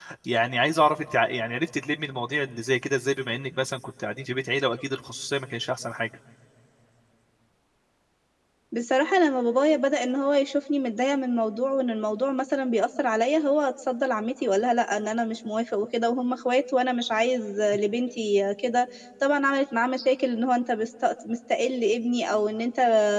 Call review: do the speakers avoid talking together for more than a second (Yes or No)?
Yes